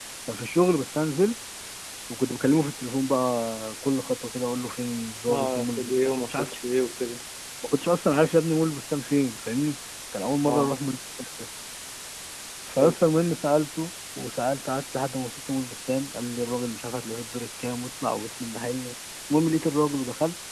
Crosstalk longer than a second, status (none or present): present